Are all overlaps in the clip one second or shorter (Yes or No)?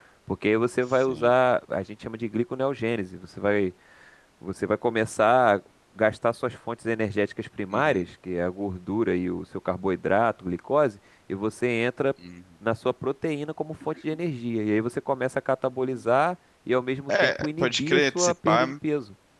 No